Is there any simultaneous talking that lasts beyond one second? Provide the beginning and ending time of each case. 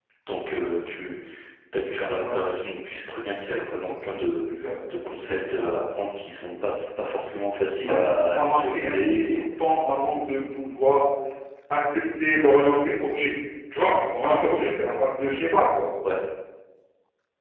7.9-9.4

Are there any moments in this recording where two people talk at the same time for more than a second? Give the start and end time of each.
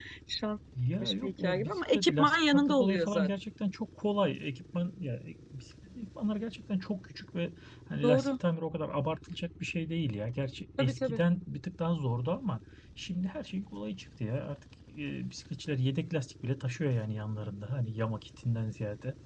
1.0-3.3

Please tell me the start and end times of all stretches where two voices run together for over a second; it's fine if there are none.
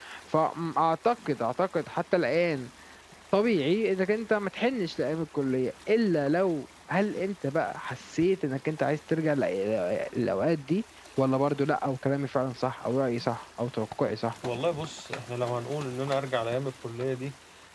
none

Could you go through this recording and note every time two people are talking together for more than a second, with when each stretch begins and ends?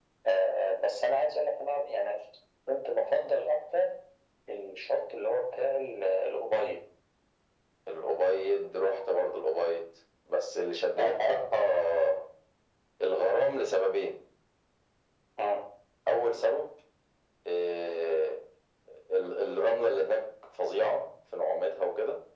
none

